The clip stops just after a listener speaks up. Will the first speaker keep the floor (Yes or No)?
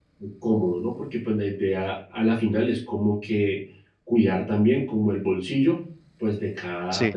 Yes